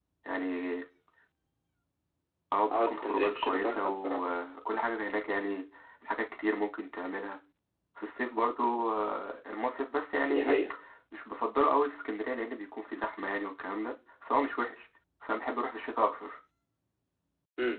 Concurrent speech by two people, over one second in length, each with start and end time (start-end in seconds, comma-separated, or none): 2.7-4.3